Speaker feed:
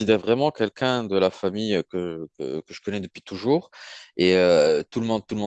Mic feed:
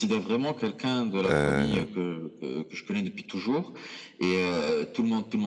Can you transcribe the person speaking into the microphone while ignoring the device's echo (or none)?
euh,